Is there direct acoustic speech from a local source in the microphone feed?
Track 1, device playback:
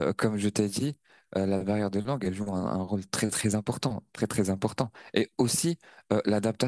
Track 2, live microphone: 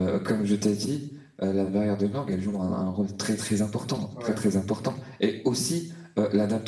Yes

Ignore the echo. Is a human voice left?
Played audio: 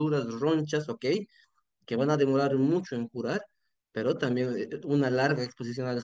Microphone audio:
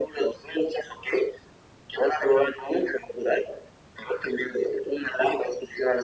No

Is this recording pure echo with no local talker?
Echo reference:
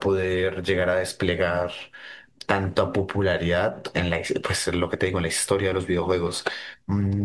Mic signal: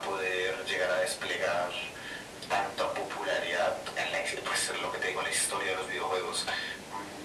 Yes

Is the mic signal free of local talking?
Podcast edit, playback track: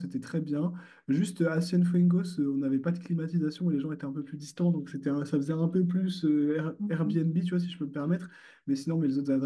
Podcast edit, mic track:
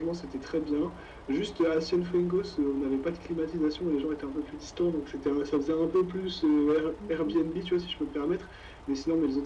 Yes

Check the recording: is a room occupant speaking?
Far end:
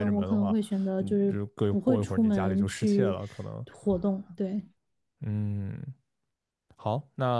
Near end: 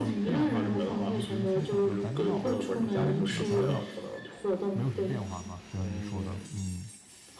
Yes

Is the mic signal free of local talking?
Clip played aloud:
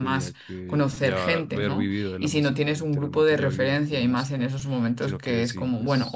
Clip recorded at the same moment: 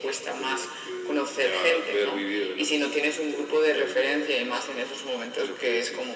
Yes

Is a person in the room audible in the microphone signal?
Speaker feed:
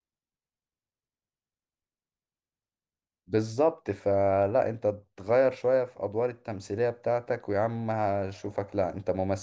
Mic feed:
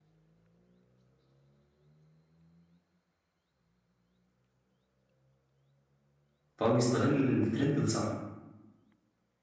Yes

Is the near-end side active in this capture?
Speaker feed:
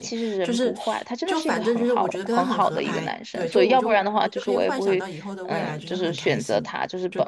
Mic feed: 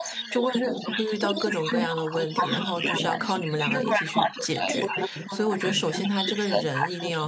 Yes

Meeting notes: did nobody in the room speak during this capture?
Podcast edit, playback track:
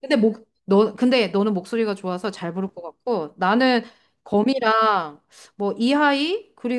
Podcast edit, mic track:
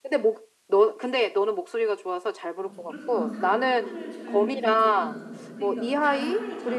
No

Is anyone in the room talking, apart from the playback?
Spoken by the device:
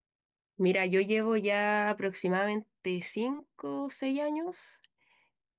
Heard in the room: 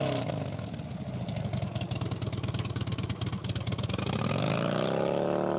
No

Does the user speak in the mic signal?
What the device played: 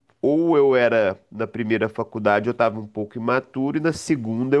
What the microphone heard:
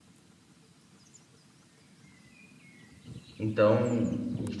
Yes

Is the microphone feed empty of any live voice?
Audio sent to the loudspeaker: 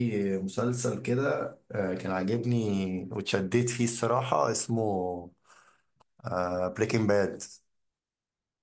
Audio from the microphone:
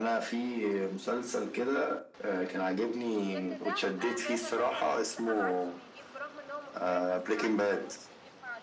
No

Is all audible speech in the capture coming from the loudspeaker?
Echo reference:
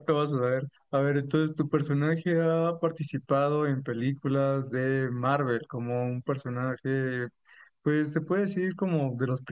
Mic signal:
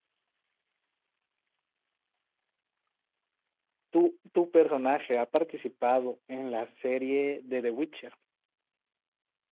No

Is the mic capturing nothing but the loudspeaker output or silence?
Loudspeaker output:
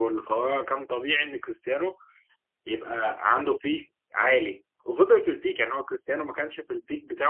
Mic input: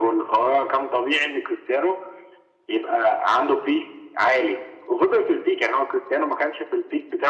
Yes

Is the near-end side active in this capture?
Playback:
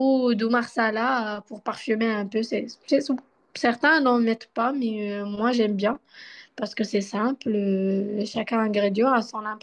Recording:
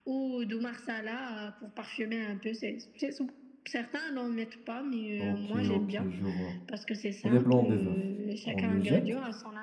Yes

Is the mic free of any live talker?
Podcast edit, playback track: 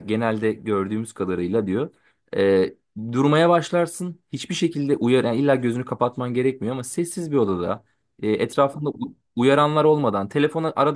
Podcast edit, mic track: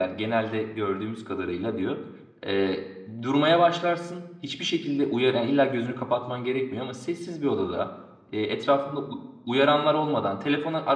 Yes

